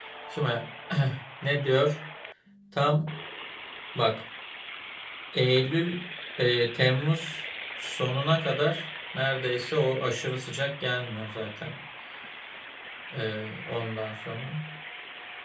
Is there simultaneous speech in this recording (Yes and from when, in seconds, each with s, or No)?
No